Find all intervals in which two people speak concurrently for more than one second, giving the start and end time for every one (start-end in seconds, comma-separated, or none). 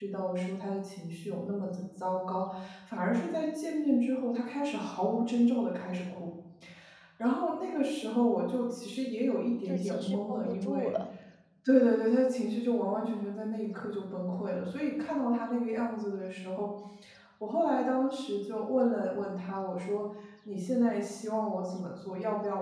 9.7-10.9